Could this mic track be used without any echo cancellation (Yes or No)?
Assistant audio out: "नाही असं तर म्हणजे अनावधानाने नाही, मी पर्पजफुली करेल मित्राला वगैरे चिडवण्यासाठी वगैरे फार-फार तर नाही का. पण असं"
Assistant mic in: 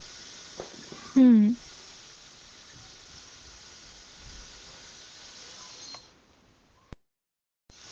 Yes